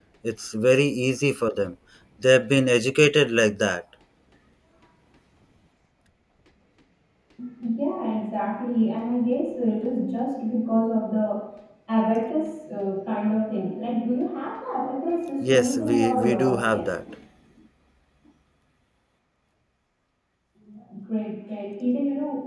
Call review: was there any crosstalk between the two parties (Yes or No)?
Yes